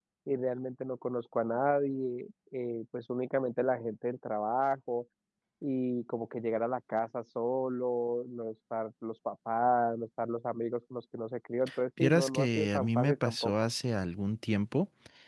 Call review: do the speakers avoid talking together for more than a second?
No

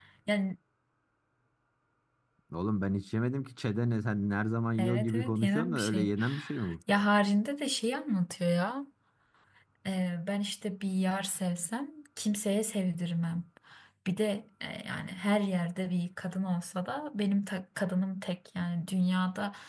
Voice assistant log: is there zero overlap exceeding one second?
No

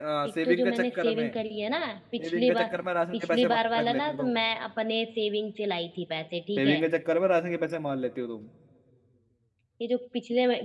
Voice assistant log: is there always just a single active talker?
No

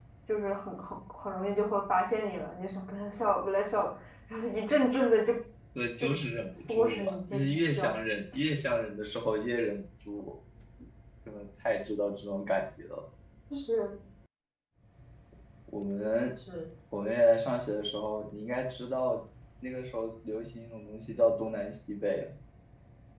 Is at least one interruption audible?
Yes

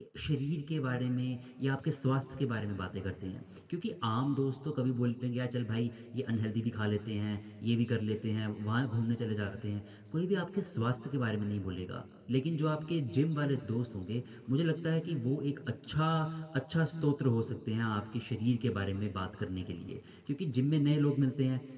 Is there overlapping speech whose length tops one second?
No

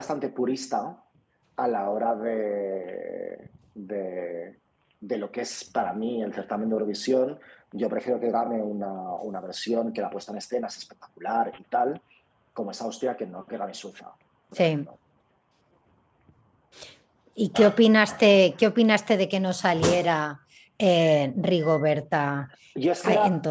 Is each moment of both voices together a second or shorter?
Yes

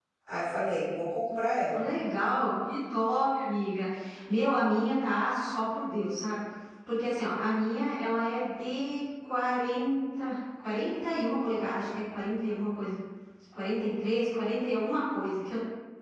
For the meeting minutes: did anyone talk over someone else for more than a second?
No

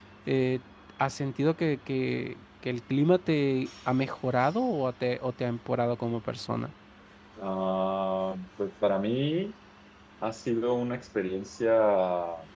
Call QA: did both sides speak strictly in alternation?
Yes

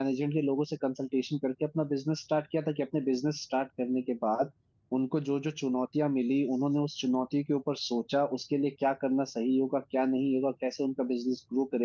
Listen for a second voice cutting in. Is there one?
No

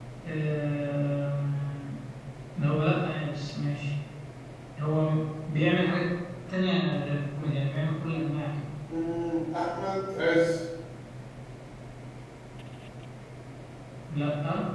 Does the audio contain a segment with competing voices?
No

